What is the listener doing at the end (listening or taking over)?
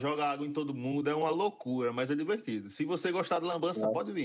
listening